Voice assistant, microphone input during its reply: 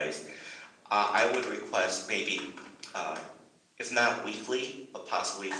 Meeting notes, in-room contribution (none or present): none